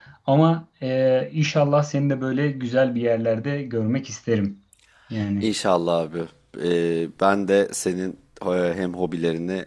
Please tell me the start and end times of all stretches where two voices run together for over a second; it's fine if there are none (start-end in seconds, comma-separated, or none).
none